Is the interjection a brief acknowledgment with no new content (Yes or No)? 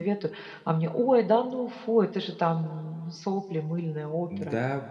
No